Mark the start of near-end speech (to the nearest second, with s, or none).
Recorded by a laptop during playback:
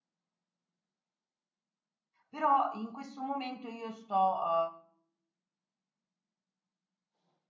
2 s